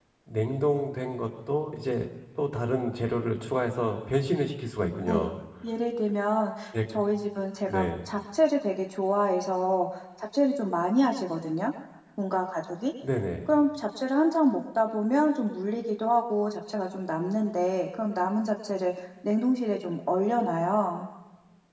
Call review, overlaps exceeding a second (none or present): none